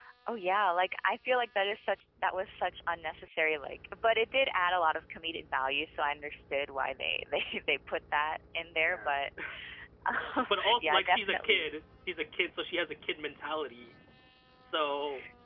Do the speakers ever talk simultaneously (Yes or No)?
Yes